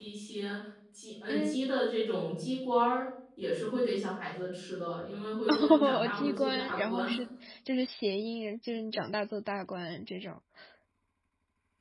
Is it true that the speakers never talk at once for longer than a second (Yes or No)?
No